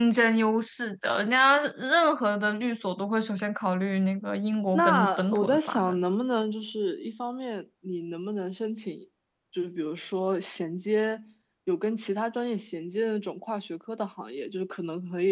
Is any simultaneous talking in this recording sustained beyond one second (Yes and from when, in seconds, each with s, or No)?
Yes, from 4.7 s